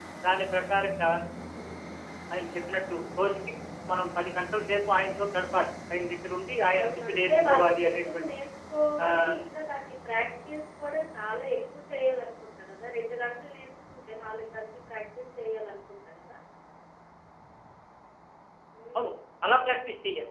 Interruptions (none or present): present